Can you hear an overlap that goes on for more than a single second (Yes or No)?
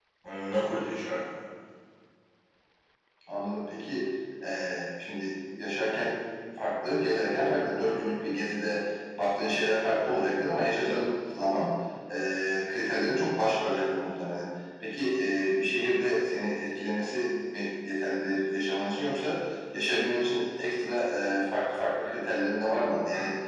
No